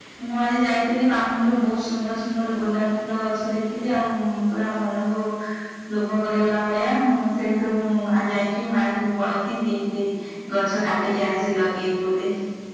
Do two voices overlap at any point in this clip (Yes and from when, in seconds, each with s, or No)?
No